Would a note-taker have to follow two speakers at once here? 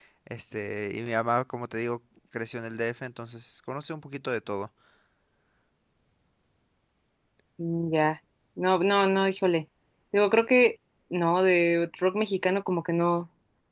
No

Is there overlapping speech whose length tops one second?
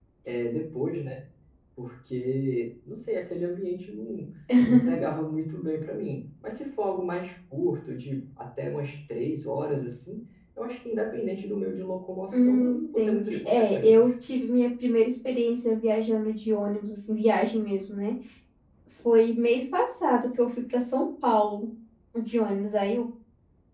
Yes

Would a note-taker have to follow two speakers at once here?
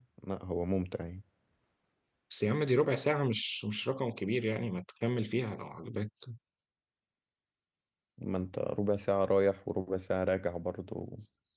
No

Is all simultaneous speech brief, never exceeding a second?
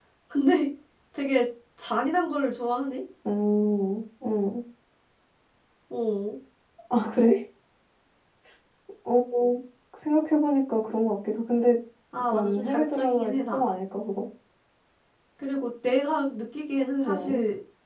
No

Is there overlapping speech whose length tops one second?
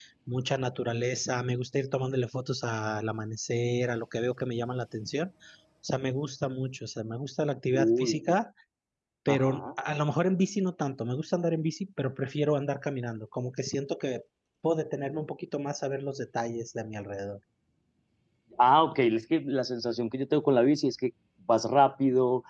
No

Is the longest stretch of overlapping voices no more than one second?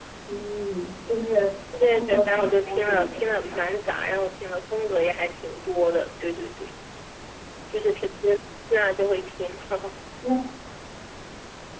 No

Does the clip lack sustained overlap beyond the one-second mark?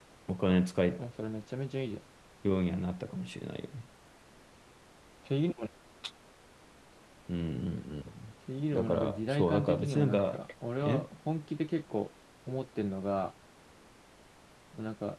No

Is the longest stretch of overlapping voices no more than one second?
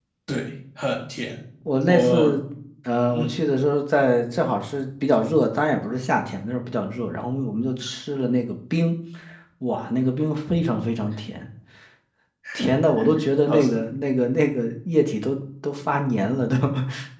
Yes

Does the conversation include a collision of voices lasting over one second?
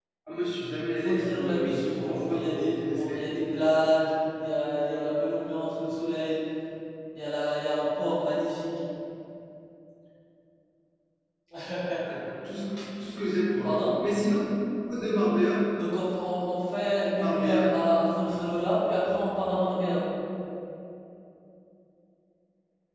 Yes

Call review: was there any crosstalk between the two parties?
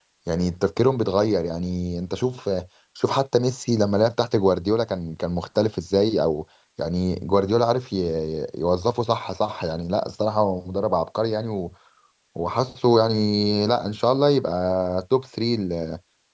No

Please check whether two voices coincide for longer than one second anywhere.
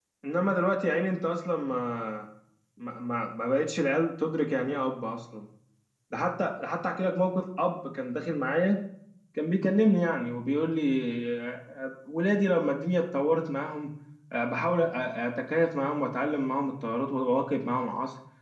No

